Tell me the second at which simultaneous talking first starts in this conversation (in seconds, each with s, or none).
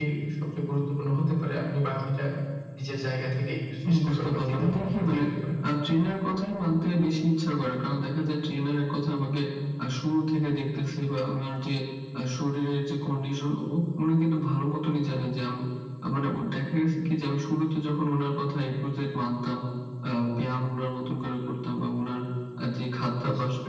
3.8 s